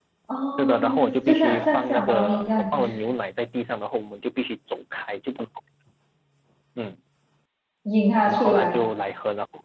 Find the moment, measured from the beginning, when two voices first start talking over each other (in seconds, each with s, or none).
0.6 s